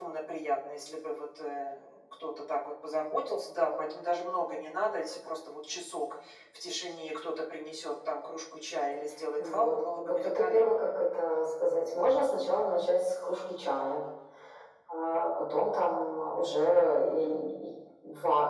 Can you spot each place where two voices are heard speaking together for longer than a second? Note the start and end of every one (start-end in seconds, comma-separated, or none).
9.4-10.9